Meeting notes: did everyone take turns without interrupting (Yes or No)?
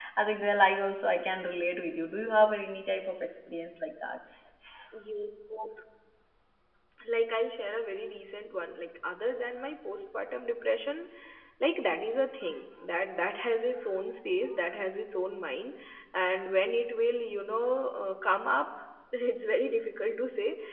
Yes